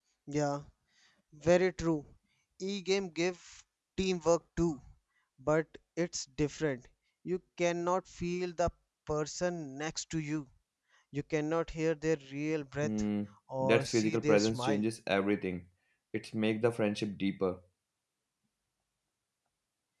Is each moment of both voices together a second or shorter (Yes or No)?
No